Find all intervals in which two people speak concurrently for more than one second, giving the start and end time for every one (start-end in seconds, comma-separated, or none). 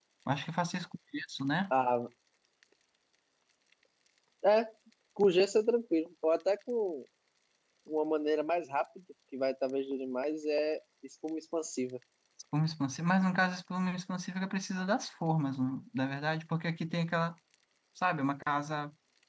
none